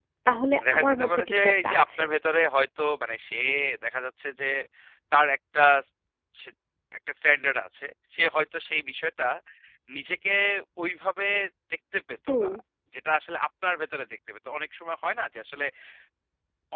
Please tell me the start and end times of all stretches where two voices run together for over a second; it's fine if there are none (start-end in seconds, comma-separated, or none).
0.7-2.0